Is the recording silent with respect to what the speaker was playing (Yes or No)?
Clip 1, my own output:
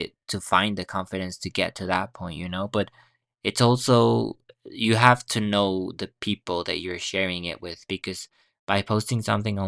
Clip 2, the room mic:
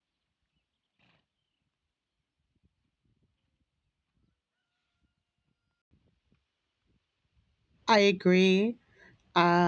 Yes